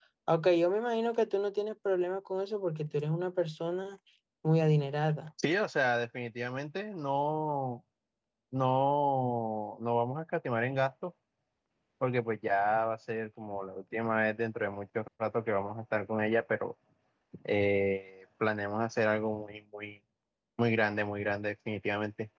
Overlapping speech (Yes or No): No